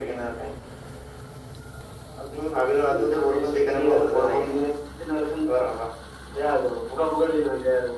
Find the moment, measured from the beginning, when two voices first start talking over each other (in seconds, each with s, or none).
3.1 s